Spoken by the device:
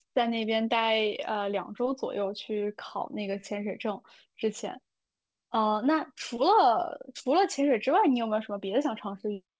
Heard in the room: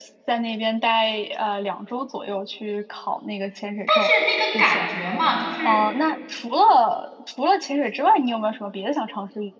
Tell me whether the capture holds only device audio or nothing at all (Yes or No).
No